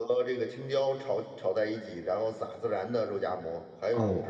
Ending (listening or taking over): listening